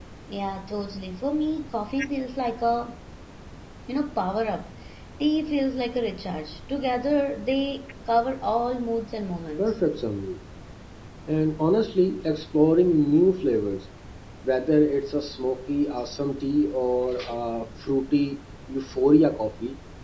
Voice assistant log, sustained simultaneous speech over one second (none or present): none